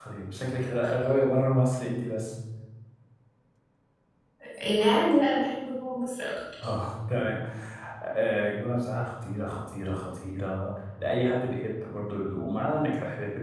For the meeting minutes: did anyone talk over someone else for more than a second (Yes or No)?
No